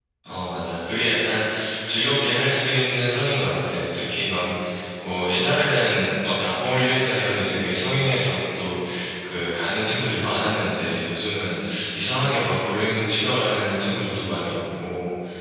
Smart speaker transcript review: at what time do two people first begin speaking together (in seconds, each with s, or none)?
none